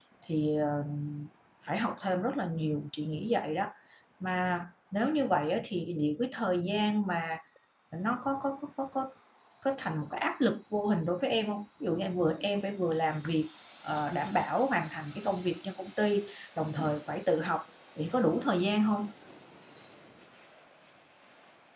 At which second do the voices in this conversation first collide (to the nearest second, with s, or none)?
none